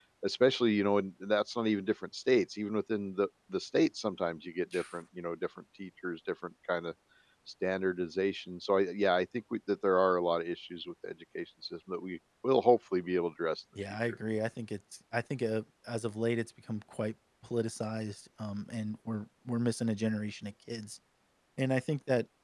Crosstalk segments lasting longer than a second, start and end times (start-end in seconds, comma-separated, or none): none